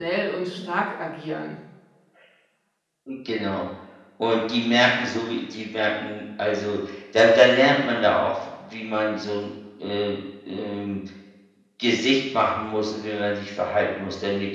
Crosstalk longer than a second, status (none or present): none